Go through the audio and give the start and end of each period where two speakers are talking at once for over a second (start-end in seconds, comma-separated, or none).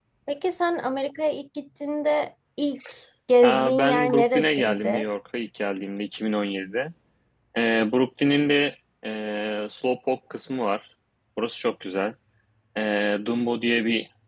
3.4-5.1